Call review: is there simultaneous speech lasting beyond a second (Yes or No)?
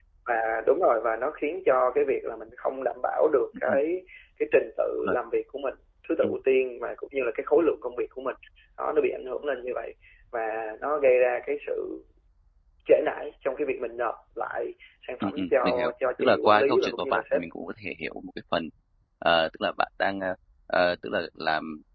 Yes